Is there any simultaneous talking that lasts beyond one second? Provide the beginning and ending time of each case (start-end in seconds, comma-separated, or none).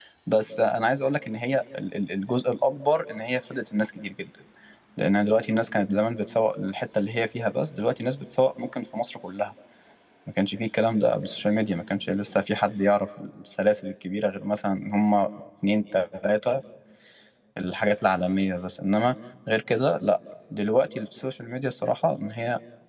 none